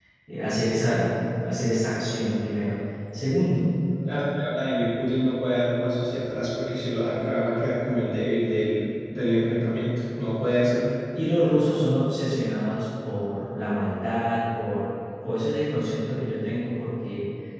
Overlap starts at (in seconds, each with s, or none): none